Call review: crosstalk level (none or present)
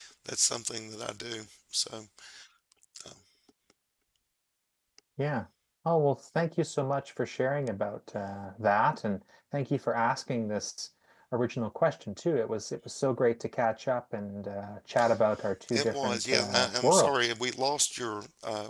present